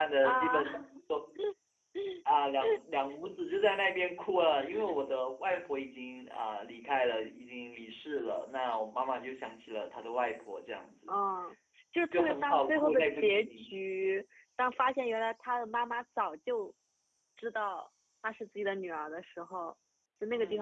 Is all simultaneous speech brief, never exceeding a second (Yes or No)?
No